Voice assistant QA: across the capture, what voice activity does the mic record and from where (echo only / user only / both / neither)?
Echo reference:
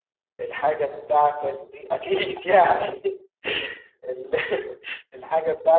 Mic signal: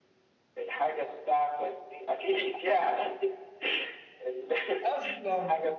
both